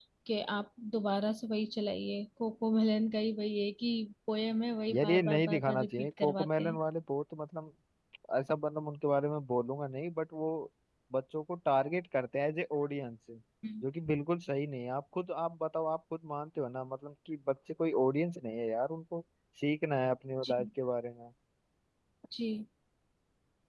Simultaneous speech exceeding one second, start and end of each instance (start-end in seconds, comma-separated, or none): 4.9-6.8